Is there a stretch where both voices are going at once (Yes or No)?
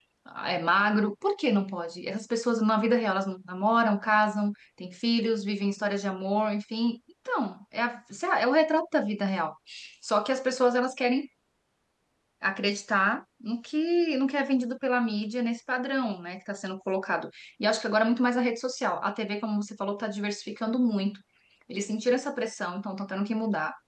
No